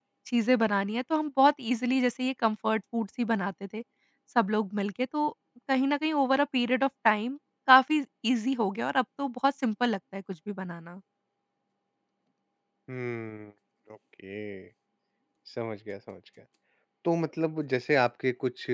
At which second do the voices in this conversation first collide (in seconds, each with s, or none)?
none